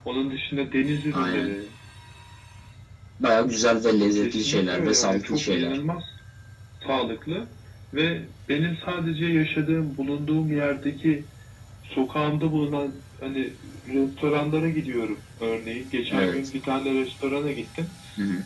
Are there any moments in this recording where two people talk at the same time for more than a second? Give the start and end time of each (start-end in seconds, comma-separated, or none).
4.2-5.8